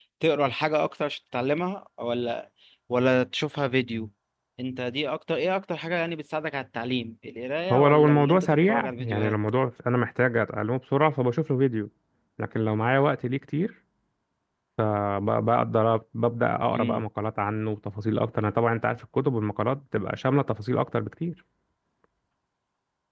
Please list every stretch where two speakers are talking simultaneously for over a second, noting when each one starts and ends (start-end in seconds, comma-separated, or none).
7.7-9.4